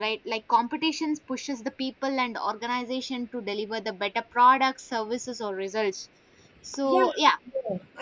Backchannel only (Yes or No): No